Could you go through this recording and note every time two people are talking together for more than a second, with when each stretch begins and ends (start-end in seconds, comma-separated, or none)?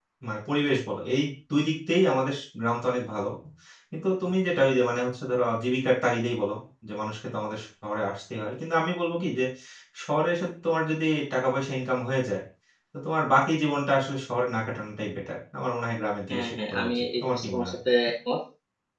16.3-17.8